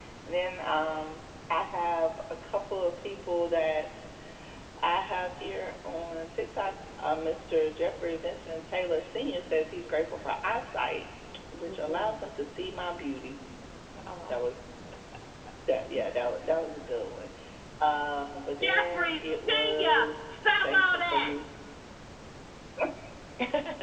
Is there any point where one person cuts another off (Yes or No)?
Yes